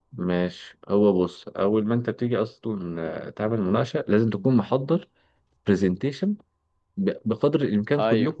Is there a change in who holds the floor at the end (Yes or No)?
No